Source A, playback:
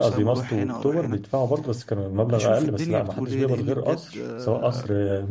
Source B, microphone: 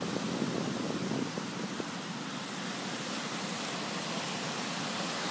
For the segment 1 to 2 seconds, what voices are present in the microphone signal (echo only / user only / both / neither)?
neither